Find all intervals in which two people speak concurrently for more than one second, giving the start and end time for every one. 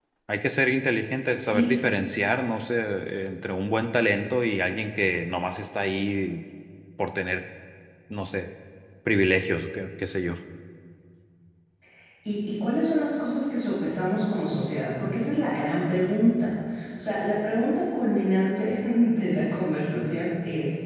none

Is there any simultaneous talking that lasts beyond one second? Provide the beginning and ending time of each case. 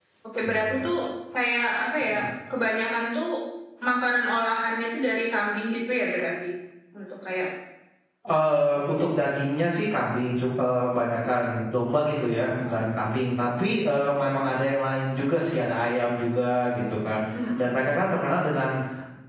none

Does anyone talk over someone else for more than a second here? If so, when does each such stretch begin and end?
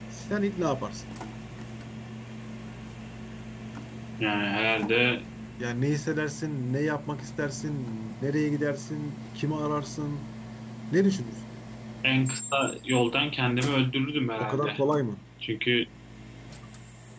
none

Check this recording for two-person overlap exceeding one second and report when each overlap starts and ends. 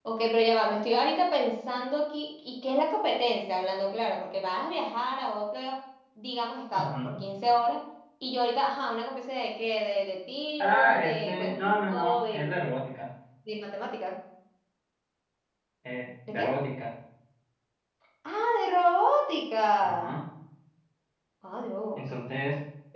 10.6-12.5

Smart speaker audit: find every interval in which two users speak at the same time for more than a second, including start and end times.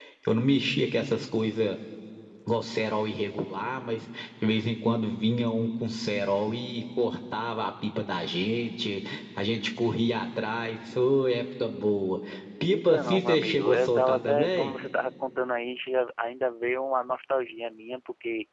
12.7-14.7

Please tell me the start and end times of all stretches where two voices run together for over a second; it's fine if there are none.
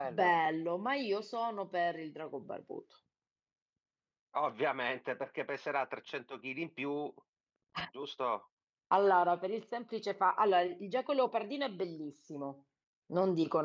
none

